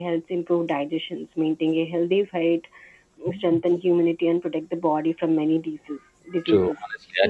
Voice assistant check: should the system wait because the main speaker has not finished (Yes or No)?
No